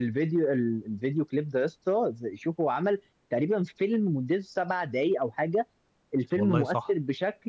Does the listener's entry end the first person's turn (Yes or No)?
No